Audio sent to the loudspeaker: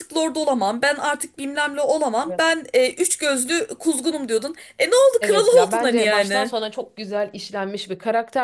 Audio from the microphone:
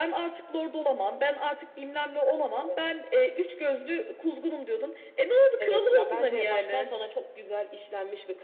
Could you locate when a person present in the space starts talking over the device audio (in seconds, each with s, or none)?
none